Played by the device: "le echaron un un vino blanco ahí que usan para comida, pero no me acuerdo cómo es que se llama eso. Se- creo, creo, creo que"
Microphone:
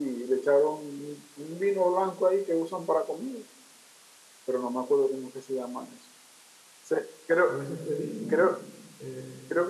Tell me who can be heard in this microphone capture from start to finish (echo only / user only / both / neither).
both